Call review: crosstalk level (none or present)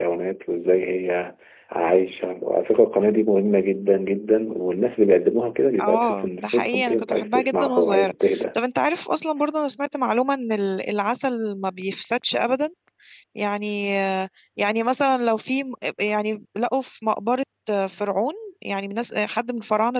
present